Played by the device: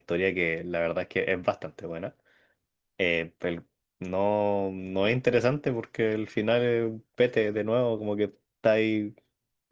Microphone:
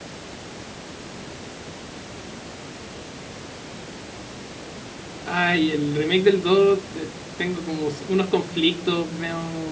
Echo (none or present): none